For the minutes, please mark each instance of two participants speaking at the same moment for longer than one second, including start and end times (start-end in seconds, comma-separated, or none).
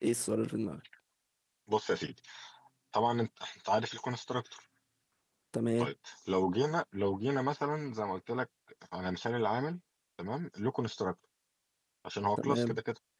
none